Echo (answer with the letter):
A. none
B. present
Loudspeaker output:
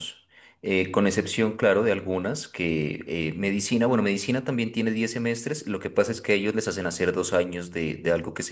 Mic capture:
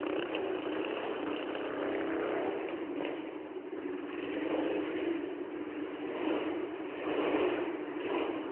A